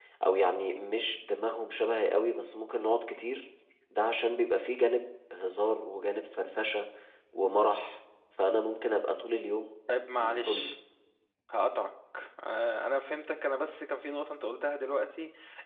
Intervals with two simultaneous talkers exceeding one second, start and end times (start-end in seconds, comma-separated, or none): none